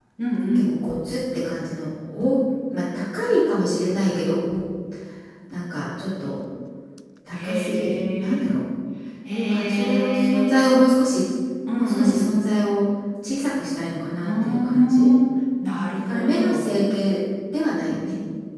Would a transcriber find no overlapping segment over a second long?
No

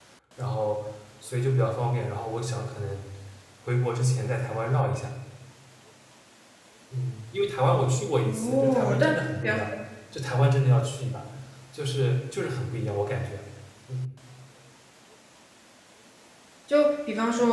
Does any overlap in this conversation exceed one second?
Yes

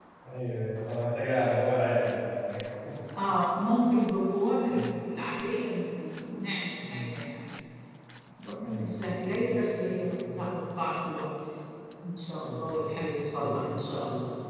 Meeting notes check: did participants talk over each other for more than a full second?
Yes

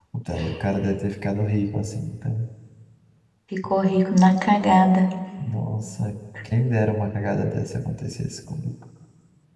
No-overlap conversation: Yes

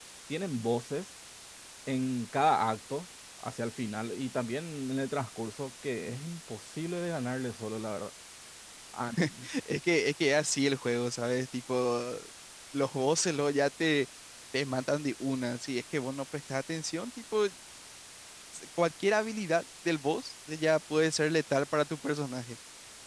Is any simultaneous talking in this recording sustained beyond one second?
No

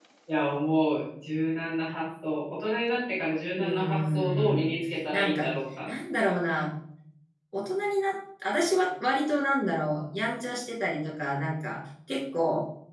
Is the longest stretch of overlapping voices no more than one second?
No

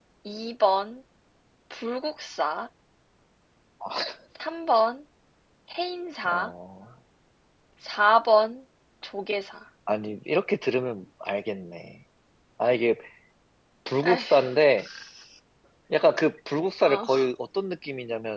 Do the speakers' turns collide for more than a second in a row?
No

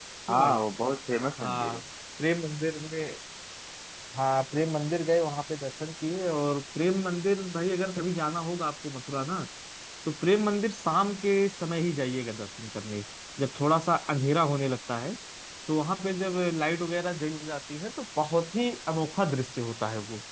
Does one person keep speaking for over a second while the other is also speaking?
No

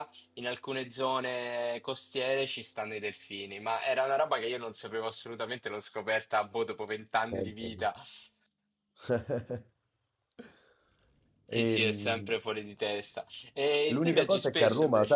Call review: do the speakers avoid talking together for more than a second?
No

